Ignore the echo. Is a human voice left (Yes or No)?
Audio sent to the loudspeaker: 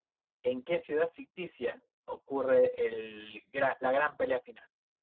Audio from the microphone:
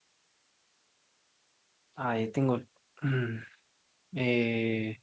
Yes